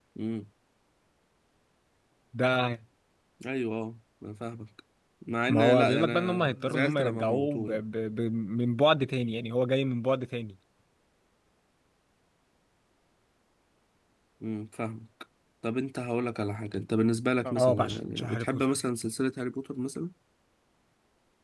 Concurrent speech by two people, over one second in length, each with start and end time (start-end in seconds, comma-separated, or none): 5.5-7.8, 17.5-18.8